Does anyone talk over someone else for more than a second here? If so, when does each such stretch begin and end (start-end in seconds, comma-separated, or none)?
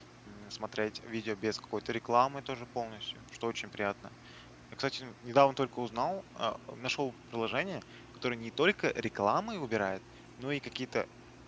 none